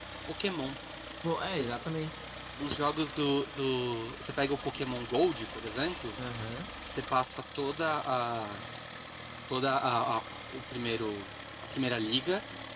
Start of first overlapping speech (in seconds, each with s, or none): none